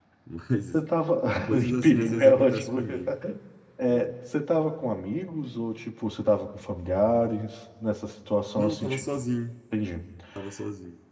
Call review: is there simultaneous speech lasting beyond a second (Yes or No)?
Yes